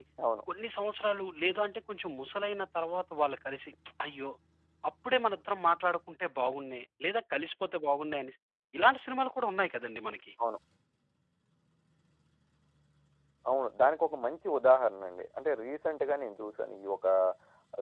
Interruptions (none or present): none